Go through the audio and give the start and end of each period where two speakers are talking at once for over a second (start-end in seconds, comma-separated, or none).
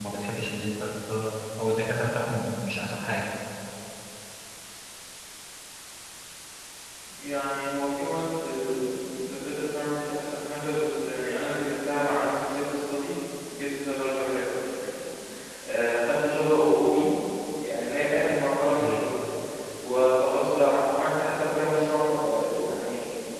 none